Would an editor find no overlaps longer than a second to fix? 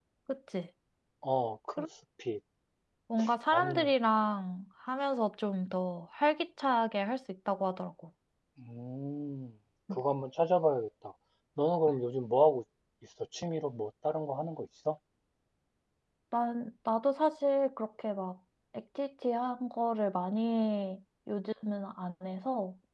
Yes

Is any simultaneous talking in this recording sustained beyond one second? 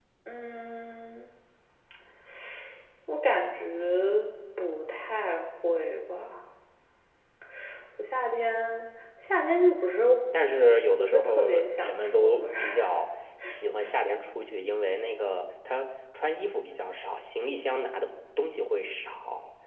Yes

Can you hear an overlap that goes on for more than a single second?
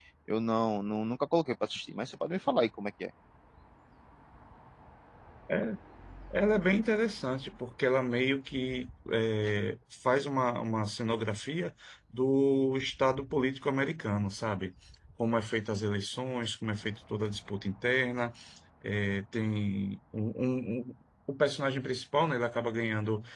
No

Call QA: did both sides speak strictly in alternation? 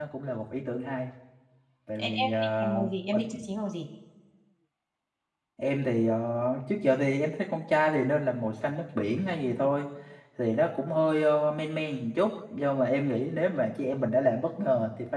No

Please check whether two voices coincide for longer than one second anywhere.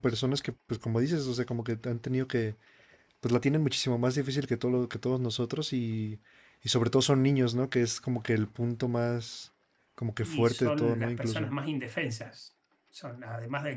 Yes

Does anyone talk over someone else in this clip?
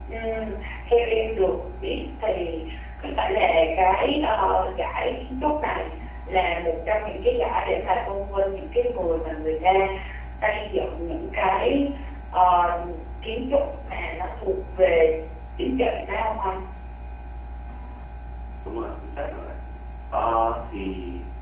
No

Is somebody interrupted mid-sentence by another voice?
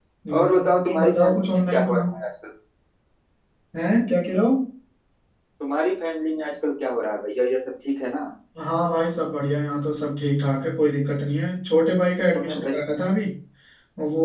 Yes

